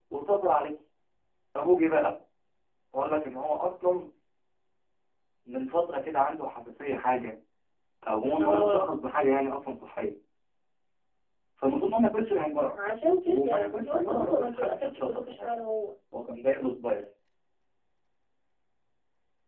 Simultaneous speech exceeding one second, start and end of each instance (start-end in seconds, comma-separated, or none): 13.3-15.5